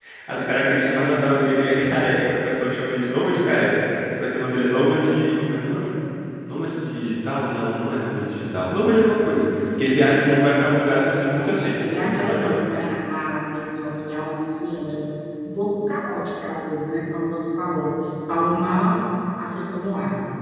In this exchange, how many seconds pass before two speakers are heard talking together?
10.9 s

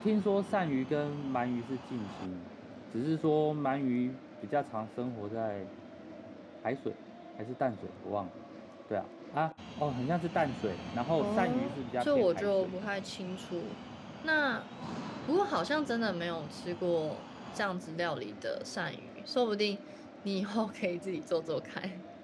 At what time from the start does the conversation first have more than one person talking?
11.2 s

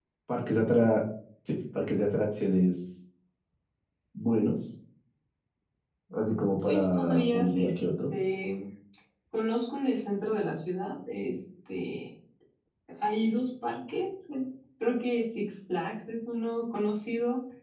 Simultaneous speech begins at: 6.6 s

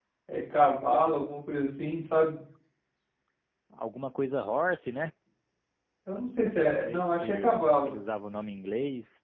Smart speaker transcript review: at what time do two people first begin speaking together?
6.6 s

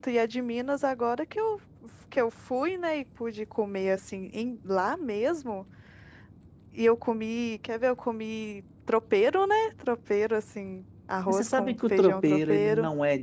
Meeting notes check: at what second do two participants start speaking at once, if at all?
11.3 s

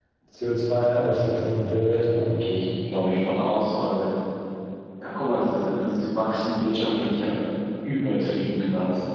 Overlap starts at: none

